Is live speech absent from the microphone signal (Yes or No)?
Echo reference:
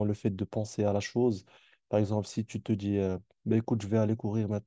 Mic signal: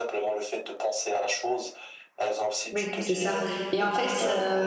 No